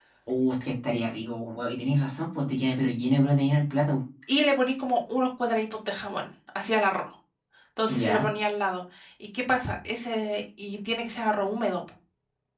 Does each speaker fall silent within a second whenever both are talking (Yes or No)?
Yes